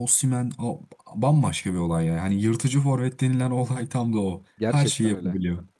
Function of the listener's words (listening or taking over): taking over